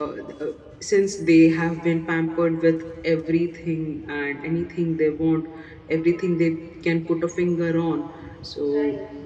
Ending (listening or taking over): listening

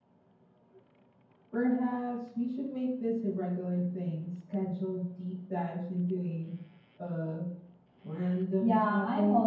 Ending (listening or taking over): taking over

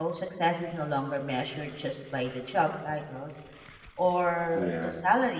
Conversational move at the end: listening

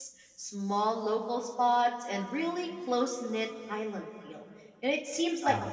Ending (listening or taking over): listening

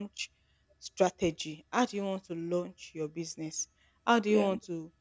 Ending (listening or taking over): listening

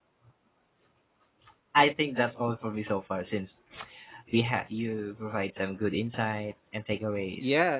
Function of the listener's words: taking over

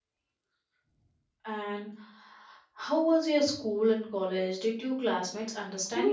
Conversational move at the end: taking over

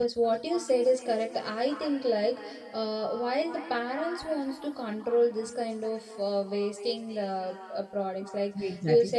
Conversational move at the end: listening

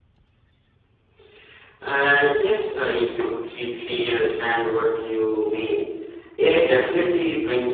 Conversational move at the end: listening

